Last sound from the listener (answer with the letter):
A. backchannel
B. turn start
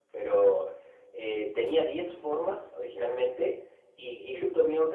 A